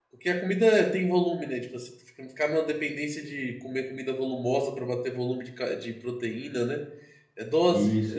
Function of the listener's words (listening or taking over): taking over